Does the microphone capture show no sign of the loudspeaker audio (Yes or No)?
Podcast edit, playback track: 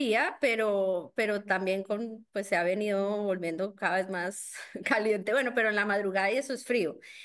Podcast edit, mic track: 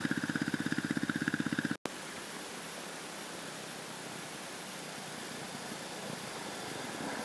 Yes